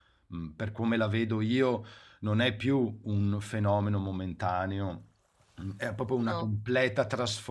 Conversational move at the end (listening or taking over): listening